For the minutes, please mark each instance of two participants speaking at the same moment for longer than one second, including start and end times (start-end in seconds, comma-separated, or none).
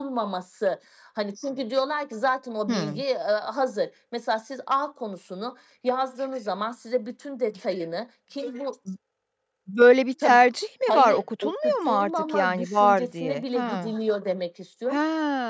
10.9-13.9